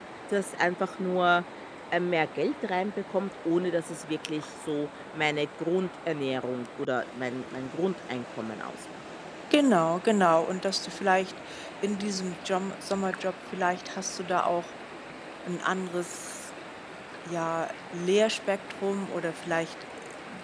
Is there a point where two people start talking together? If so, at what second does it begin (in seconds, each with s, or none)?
none